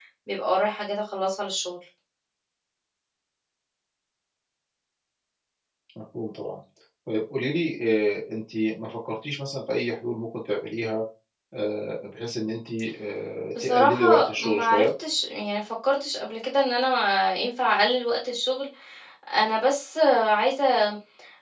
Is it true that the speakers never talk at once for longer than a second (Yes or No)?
No